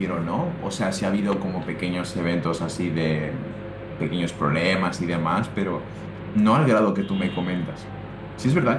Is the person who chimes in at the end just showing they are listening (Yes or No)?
Yes